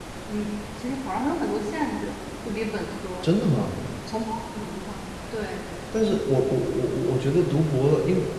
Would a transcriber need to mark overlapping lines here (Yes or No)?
No